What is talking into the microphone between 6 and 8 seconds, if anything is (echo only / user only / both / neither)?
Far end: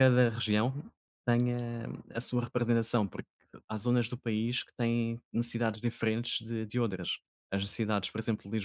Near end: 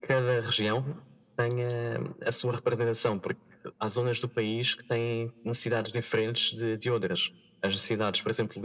echo only